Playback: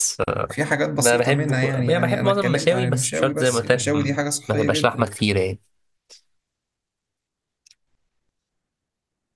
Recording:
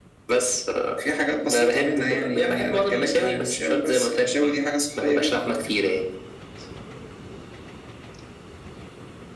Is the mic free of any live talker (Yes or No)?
Yes